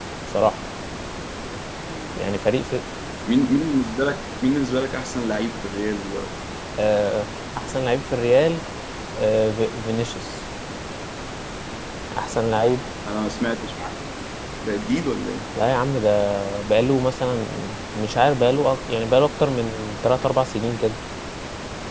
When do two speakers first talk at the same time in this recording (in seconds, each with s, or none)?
none